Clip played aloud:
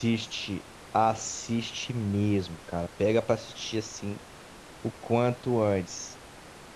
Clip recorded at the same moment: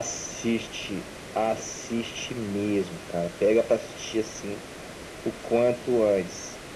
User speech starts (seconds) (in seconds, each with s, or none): none